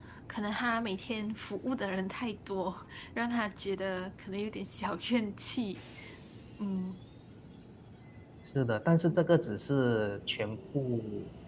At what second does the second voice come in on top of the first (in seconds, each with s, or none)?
none